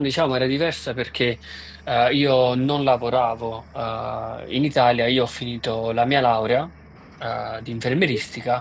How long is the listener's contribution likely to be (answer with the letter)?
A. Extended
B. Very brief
B